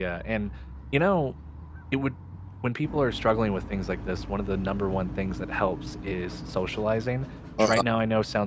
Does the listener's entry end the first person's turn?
No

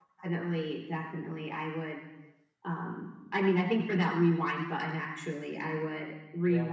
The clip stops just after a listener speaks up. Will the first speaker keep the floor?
Yes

